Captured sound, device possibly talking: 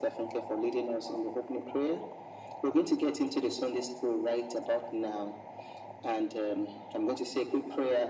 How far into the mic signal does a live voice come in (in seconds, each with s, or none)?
none